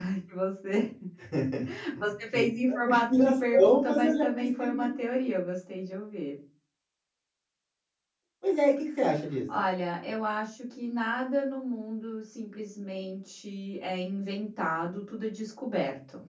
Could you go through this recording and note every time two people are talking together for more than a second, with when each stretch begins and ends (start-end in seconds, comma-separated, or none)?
2.7-4.9